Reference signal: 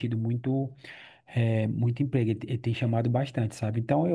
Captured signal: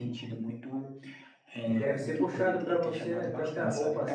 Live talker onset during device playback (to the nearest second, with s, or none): 2 s